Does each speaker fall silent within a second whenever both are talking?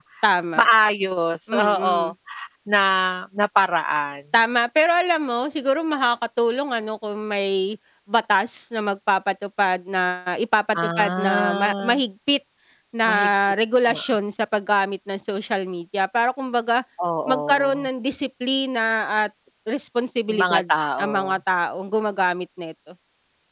No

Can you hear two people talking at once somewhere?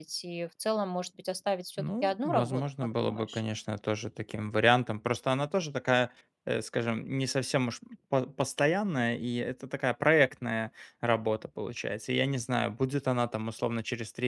Yes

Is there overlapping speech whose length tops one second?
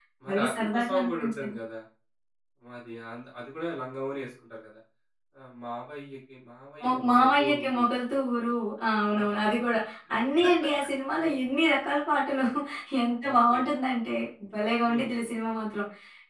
Yes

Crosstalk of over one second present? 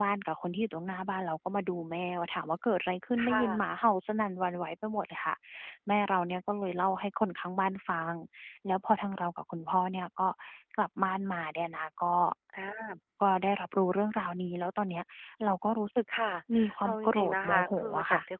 Yes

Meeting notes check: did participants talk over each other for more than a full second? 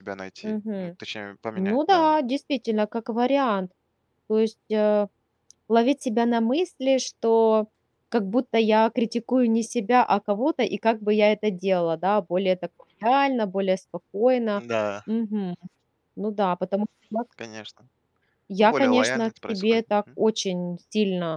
Yes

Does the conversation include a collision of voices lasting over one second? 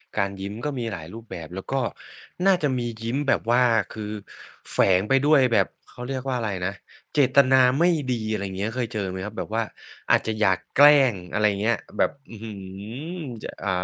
No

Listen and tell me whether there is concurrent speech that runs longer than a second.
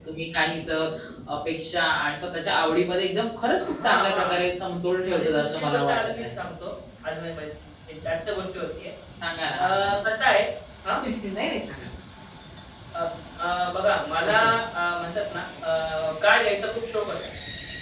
Yes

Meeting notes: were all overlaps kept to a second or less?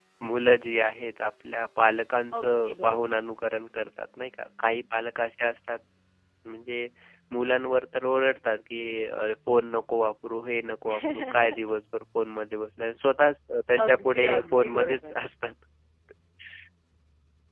No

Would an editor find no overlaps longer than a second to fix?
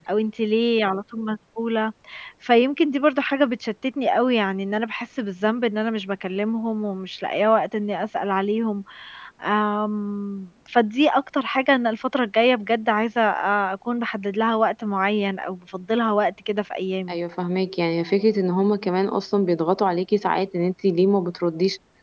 Yes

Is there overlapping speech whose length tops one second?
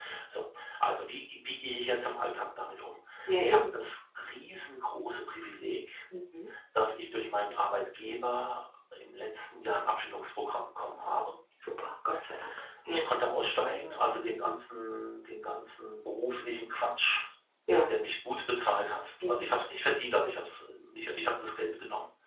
No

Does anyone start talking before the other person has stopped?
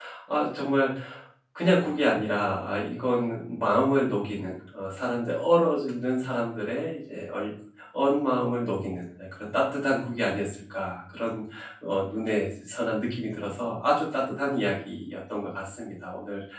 No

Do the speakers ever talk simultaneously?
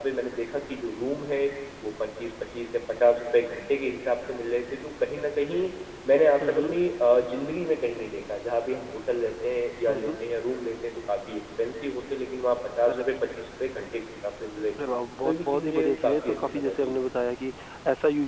Yes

